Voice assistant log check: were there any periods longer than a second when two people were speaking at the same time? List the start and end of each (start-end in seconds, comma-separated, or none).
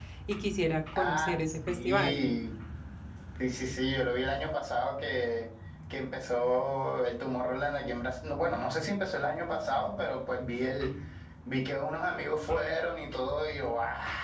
0.9-2.2